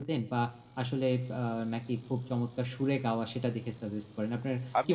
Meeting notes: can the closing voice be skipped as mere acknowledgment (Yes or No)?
No